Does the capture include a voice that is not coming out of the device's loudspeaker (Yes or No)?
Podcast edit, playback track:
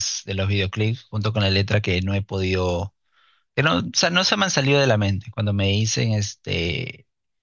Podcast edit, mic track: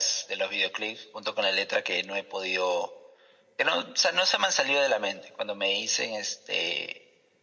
No